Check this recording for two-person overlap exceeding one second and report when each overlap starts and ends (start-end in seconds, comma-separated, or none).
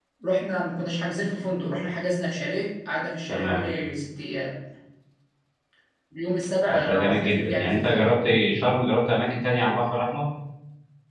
6.7-8.1